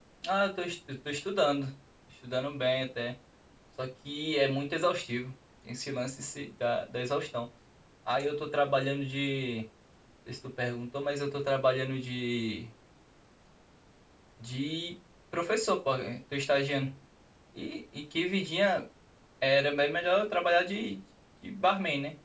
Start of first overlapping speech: none

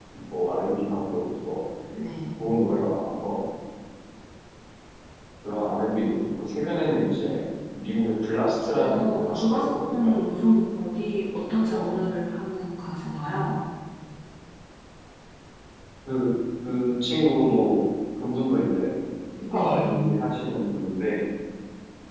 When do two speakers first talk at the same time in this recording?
9 s

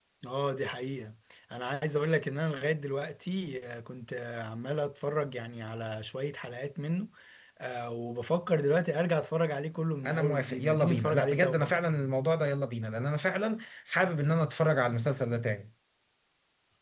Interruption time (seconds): 10 s

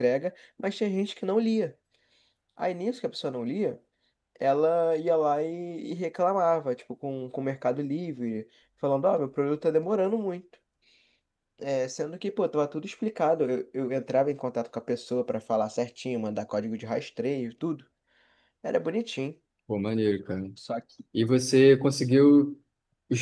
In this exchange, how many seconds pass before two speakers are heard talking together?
none

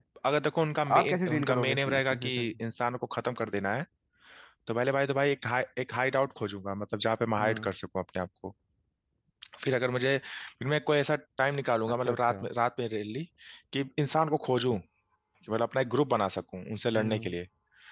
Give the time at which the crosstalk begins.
1 s

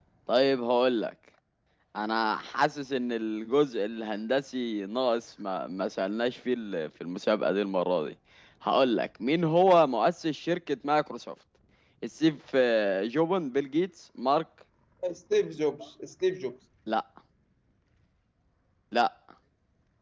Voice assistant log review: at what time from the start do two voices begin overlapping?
none

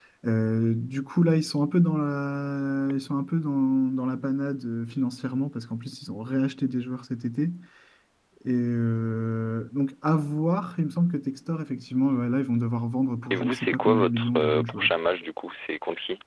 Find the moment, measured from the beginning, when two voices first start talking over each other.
13 s

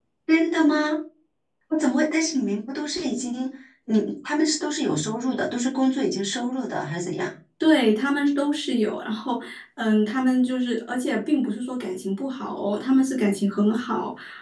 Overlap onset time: none

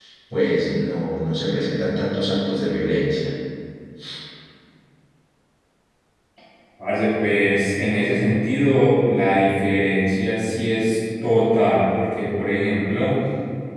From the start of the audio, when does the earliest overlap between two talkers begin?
none

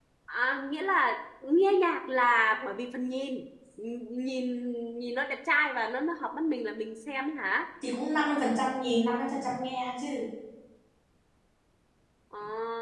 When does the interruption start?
none

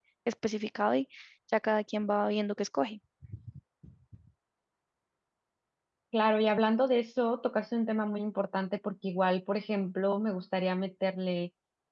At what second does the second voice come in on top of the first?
none

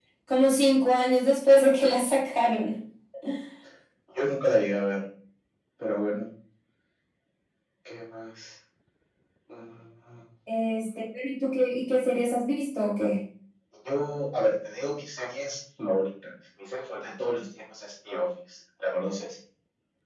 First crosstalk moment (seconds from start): none

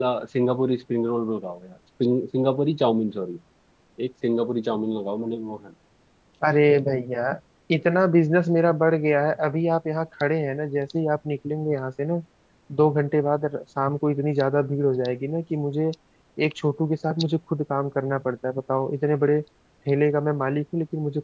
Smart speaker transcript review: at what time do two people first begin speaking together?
none

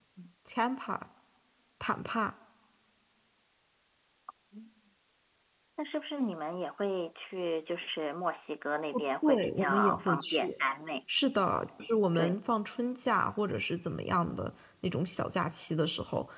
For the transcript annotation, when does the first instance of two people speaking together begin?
9 s

